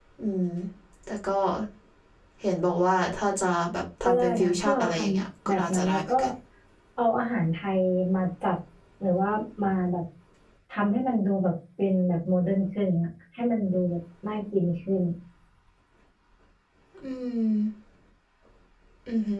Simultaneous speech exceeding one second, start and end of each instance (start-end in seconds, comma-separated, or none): 4.0-6.1